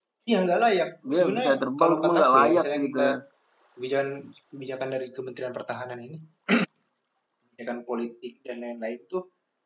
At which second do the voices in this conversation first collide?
1.1 s

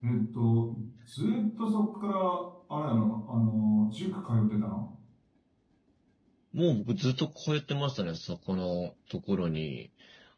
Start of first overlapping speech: none

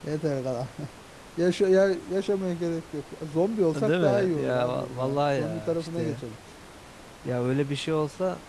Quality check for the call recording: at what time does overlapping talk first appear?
3.7 s

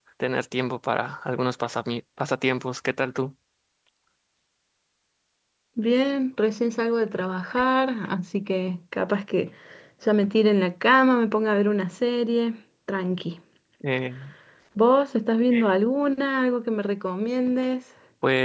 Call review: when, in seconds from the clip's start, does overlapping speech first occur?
none

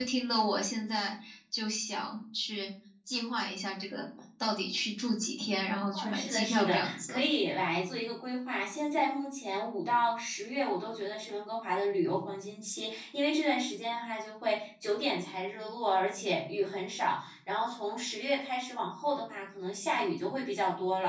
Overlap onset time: 5.9 s

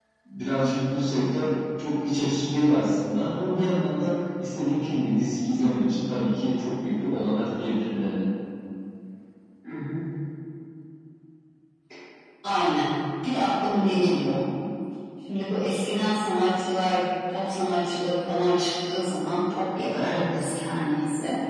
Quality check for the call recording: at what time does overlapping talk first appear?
none

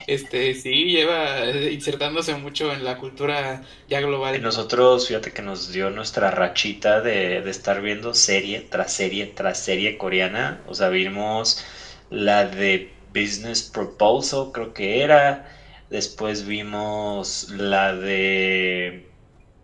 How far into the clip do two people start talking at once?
none

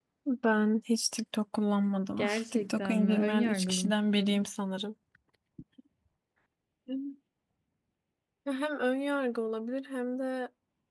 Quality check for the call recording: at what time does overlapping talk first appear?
2.2 s

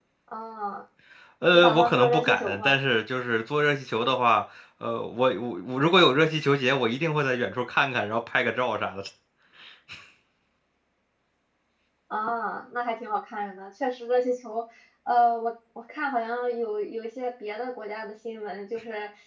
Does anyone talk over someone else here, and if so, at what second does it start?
1.5 s

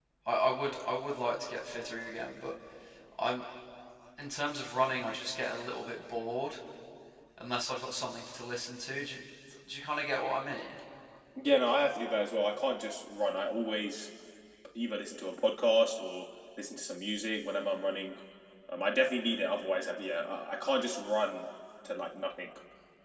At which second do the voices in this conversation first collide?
none

